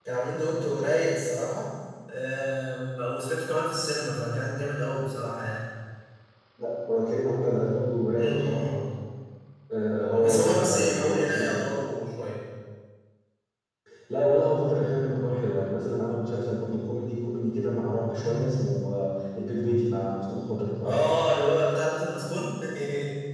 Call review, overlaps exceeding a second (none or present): present